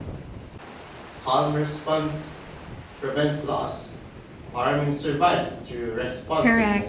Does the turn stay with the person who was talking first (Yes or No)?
No